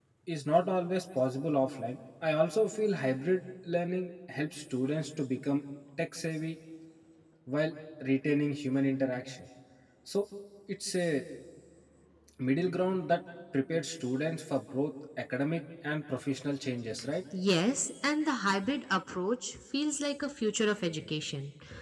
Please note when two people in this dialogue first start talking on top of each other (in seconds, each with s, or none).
none